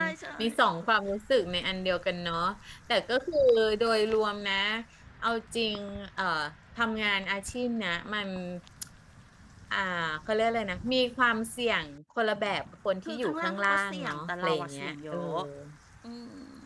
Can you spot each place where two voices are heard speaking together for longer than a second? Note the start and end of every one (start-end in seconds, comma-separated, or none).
13.1-15.2